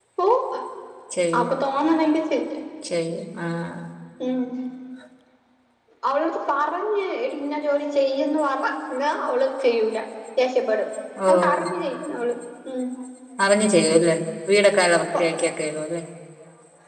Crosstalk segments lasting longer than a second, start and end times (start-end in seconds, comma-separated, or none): none